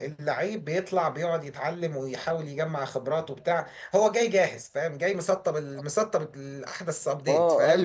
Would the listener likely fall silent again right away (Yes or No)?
No